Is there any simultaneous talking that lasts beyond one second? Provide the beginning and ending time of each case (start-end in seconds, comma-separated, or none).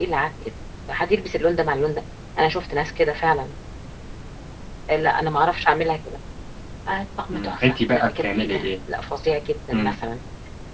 7.3-8.6